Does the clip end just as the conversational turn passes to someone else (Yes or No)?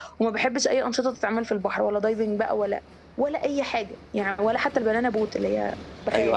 Yes